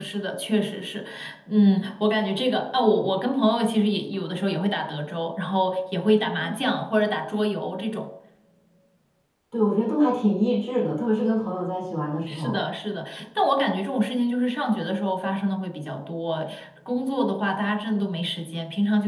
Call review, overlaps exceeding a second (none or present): none